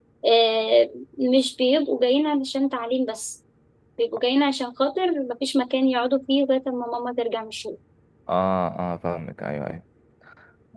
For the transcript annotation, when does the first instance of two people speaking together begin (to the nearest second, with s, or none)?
none